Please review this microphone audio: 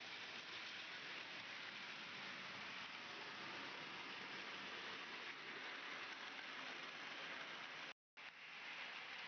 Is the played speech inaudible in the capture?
Yes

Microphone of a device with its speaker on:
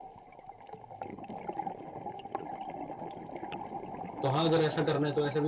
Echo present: No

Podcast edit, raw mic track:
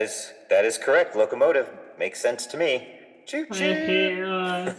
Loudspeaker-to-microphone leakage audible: Yes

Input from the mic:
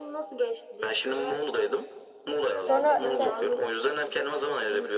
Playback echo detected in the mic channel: Yes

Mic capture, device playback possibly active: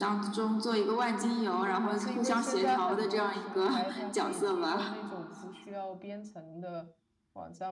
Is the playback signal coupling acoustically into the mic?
Yes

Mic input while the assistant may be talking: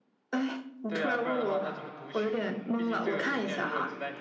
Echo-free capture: No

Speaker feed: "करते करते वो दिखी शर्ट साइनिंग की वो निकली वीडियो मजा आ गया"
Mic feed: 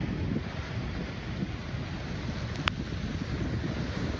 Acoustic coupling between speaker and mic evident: No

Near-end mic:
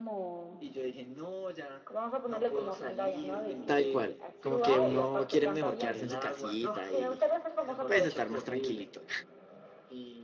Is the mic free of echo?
No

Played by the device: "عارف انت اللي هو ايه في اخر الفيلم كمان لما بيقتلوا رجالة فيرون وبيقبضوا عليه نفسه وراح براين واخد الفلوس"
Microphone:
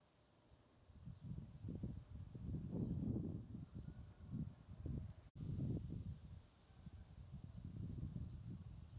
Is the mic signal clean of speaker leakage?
Yes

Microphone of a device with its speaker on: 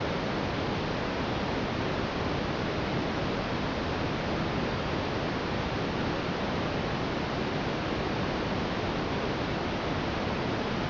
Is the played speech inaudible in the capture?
Yes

